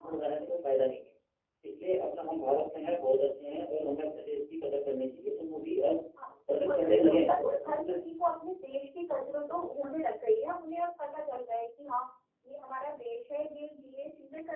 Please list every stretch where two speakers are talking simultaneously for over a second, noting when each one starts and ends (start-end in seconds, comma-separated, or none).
6.5-8.0